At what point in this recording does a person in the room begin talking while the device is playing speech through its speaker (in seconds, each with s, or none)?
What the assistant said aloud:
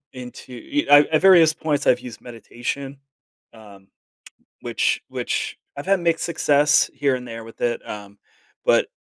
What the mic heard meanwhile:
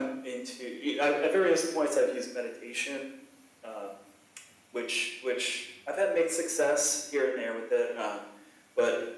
none